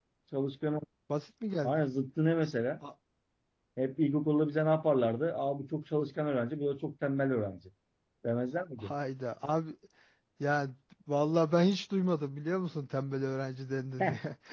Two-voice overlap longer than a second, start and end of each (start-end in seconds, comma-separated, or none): none